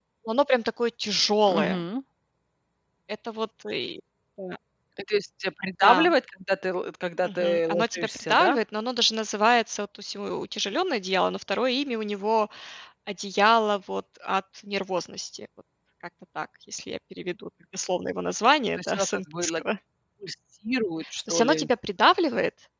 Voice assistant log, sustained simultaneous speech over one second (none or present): present